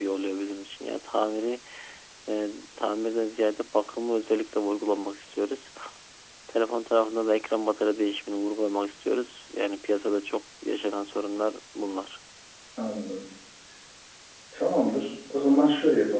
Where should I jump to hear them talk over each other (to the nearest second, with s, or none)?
none